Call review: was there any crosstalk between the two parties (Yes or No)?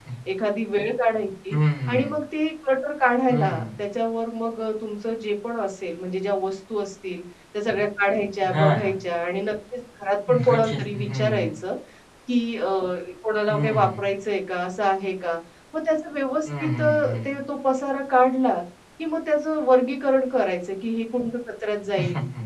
Yes